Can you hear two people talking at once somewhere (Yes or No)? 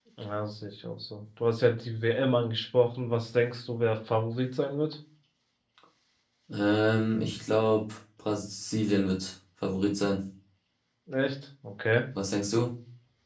No